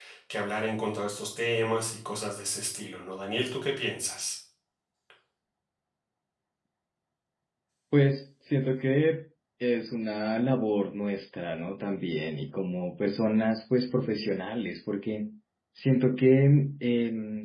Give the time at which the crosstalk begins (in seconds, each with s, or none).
none